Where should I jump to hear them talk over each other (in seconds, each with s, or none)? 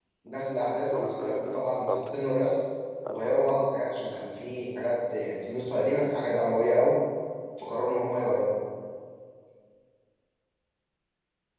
0.9 s